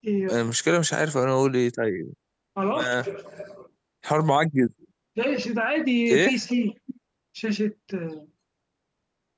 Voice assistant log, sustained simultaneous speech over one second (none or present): none